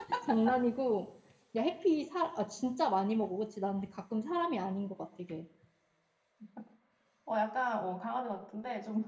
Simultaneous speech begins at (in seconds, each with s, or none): none